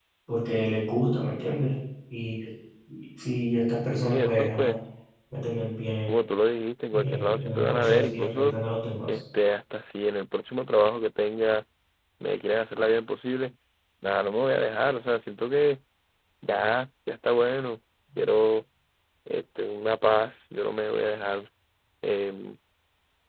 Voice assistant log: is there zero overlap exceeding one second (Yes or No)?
No